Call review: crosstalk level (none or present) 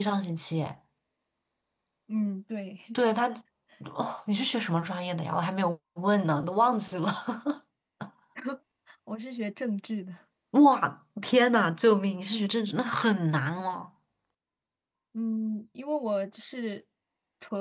none